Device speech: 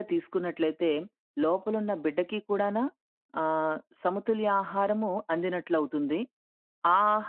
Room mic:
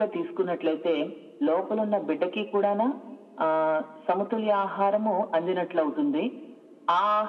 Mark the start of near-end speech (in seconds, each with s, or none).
none